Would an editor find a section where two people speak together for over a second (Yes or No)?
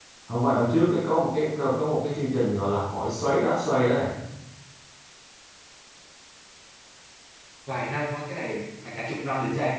No